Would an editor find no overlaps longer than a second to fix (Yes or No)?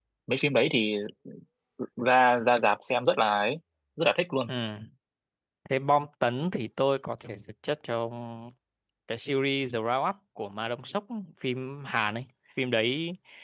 Yes